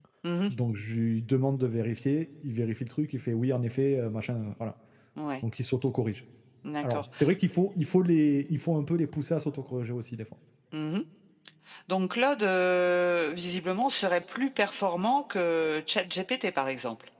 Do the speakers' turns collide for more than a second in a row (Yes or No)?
No